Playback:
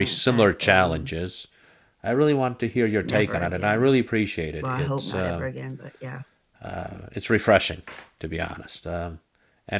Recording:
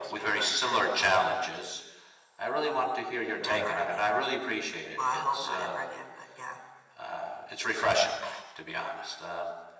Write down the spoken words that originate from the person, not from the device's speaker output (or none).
but